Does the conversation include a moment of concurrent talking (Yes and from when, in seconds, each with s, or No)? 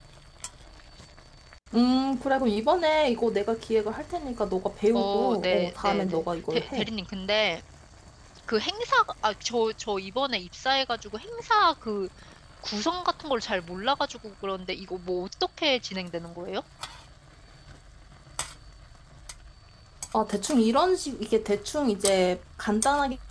Yes, from 4.9 s